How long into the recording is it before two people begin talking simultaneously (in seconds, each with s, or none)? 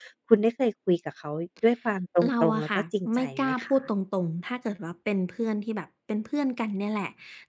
2.2 s